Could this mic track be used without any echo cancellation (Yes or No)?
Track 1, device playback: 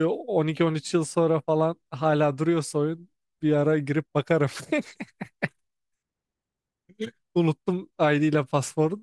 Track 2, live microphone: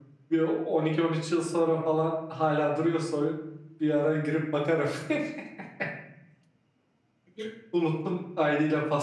No